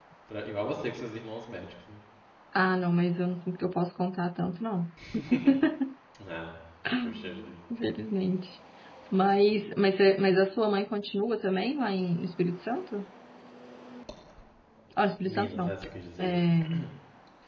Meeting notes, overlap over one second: none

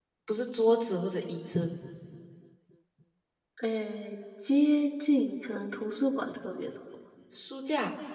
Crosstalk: none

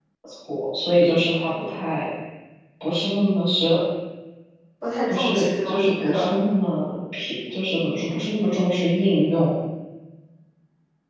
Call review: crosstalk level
present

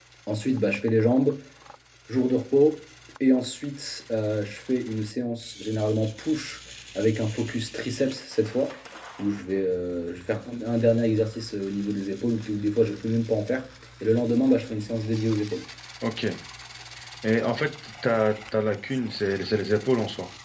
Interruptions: none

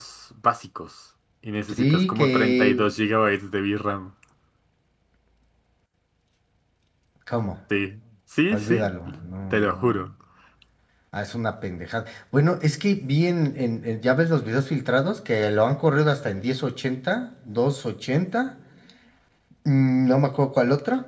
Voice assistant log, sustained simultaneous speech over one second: present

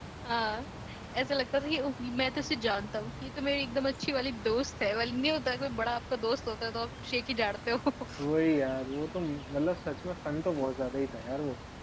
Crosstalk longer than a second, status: none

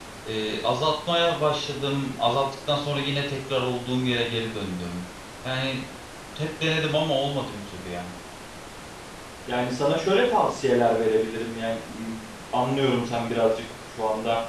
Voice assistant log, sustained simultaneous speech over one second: none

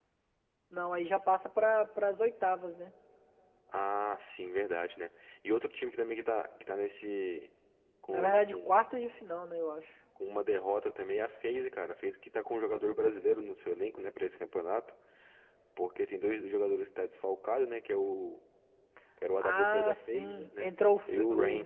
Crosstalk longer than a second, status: present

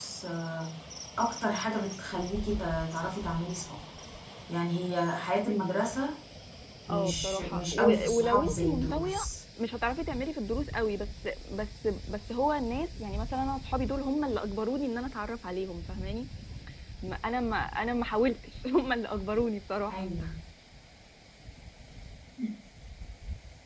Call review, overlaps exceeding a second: present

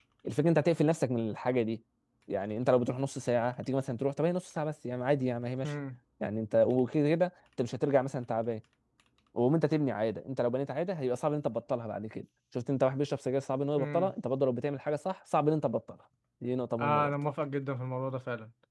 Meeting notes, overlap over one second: none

